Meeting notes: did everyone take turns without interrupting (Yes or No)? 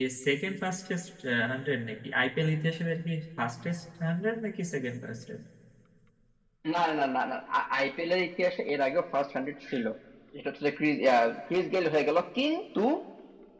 Yes